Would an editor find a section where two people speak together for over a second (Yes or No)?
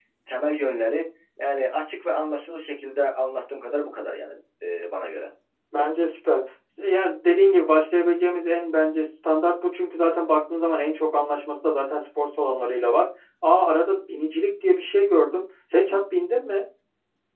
No